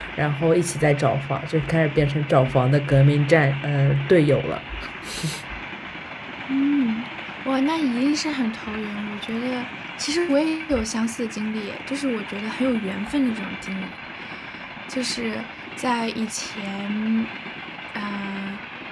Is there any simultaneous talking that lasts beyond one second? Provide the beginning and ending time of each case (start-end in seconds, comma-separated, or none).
none